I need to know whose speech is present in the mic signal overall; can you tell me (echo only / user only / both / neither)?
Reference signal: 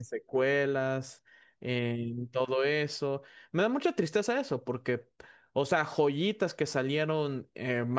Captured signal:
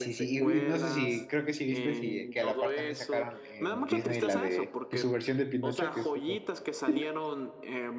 both